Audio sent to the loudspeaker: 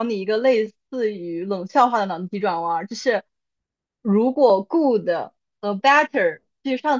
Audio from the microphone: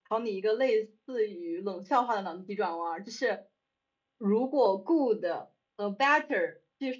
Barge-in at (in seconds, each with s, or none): none